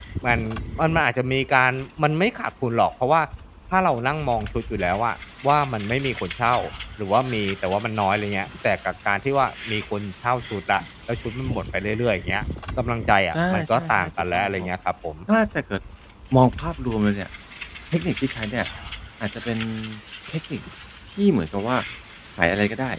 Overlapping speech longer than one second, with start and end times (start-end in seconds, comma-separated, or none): 13.3-14.7